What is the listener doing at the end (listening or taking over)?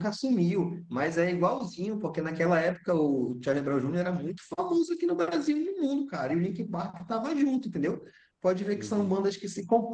listening